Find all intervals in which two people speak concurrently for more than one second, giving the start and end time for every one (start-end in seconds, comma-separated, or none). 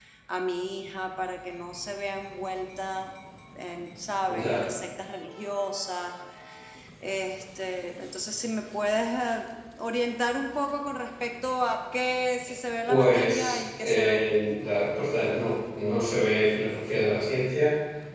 12.9-14.2